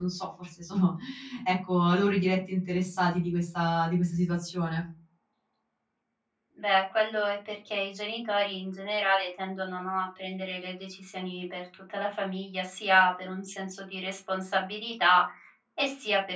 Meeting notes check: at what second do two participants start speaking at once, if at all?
none

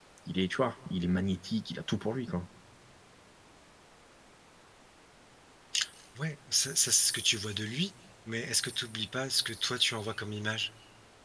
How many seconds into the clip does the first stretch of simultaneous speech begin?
none

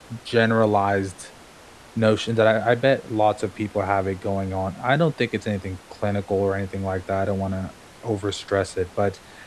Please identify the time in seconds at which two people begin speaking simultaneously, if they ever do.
none

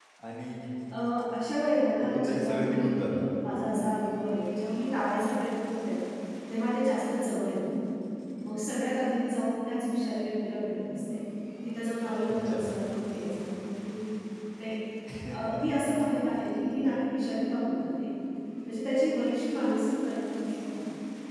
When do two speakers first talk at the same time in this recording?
2 s

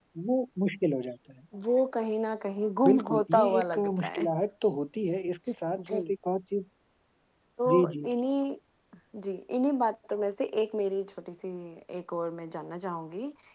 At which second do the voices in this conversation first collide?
3 s

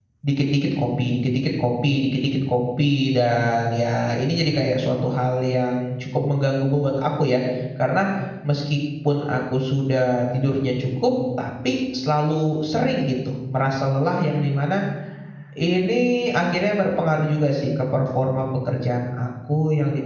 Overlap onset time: none

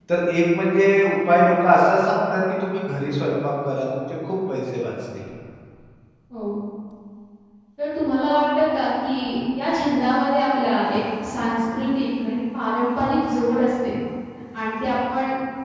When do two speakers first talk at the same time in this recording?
none

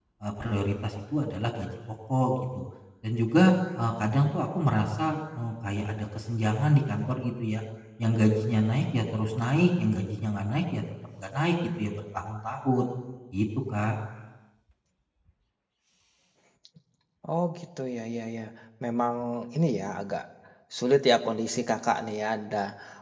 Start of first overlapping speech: none

